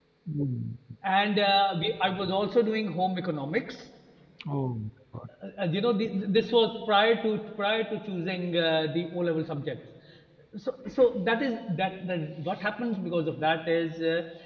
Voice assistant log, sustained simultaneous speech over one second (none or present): none